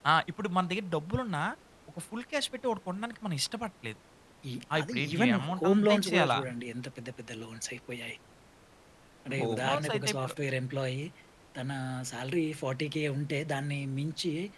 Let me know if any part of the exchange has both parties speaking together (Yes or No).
Yes